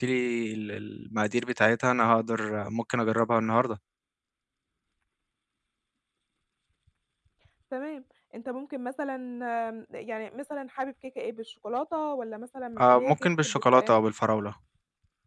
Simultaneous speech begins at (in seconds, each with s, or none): 12.8 s